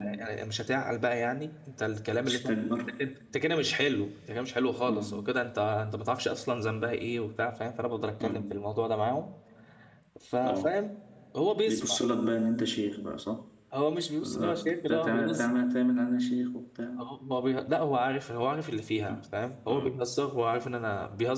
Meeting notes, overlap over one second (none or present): present